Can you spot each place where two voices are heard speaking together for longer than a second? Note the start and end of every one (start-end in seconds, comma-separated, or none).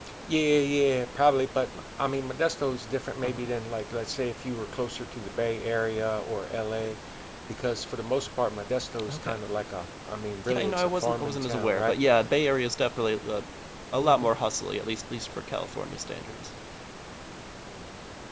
10.5-12.0